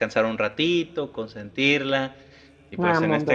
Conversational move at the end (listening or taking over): listening